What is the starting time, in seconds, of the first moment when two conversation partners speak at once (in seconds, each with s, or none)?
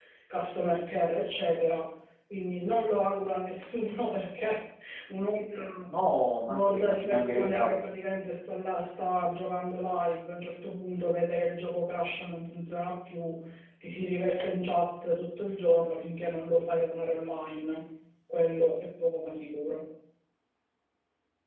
6.5 s